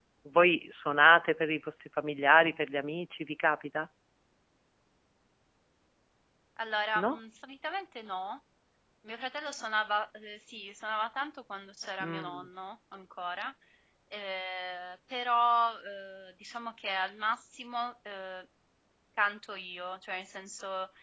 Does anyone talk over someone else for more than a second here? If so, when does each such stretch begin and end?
none

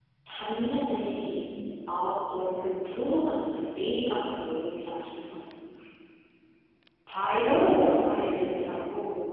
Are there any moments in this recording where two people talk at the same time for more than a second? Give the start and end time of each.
7.1-8.8

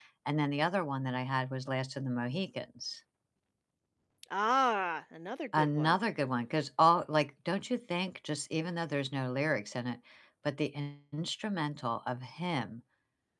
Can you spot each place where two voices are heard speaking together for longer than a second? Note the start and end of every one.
none

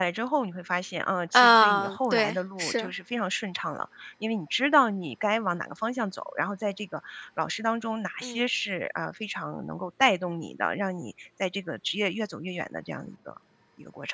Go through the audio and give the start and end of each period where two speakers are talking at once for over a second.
1.3-2.9

